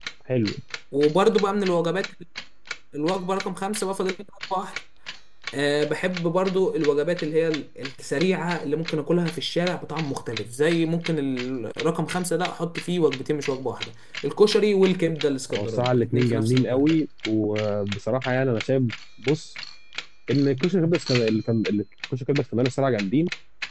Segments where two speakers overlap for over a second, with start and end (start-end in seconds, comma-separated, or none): 15.5-16.9